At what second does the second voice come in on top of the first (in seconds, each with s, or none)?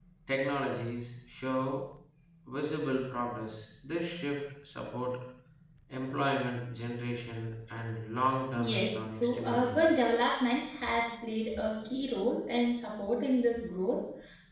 8.6 s